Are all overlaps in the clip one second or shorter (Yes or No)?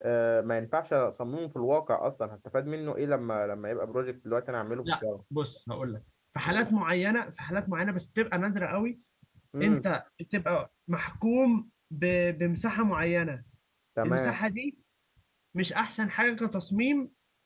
Yes